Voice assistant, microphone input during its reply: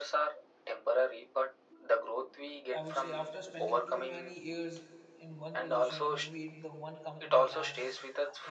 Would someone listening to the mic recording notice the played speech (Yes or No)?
Yes